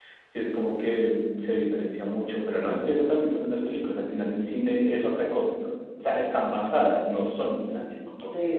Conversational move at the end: taking over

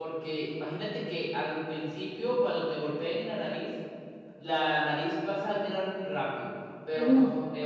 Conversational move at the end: listening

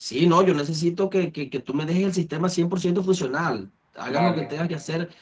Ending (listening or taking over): listening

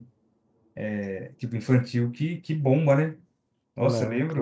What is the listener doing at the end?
listening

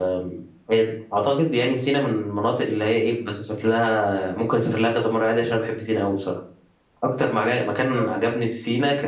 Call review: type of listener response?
listening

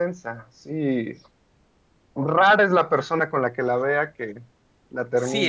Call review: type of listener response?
taking over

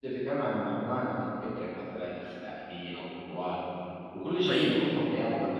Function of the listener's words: listening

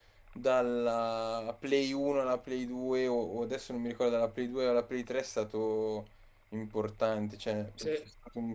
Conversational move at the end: listening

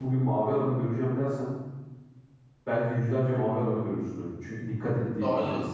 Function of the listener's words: taking over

